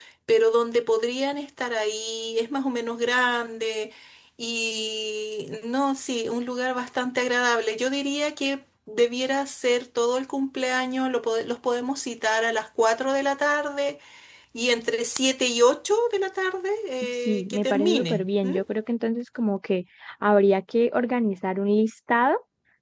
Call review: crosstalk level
present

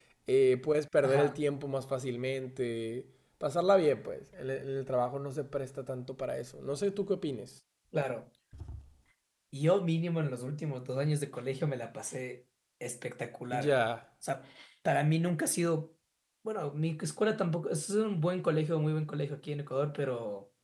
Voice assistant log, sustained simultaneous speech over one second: none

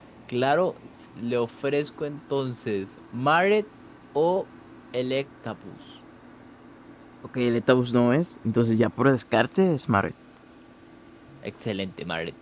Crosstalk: none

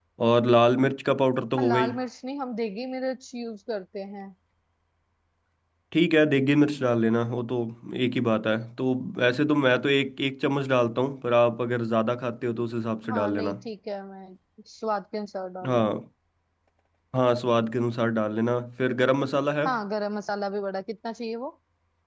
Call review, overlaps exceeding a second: none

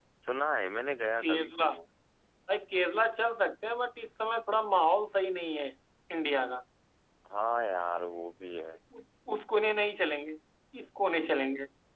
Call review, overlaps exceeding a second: none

